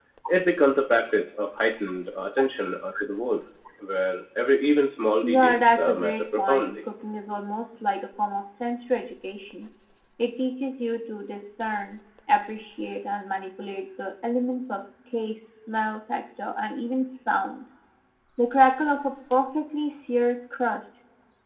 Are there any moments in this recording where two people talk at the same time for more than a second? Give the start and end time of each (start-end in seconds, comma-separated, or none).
5.2-6.8